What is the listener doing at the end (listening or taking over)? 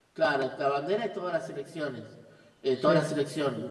listening